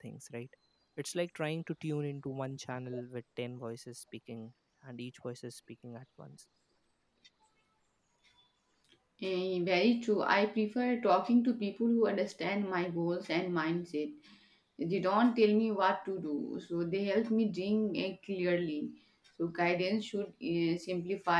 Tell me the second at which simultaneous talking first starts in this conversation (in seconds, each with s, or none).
none